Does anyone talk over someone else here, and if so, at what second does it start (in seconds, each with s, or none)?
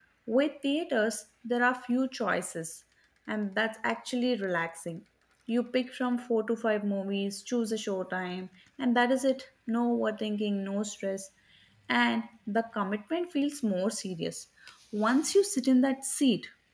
none